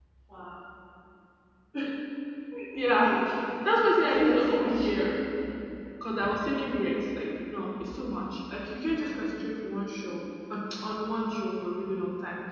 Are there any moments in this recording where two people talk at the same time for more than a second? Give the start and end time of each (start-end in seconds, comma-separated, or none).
3.6-4.9